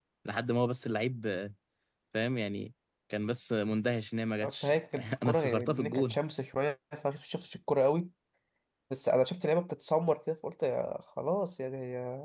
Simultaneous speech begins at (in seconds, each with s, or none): 4.4 s